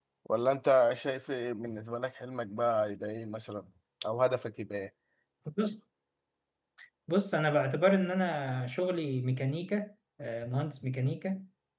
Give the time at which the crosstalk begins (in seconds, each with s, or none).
none